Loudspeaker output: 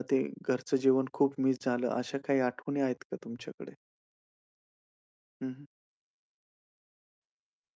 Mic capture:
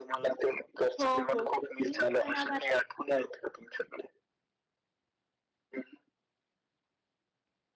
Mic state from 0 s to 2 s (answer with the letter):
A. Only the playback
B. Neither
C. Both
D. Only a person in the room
C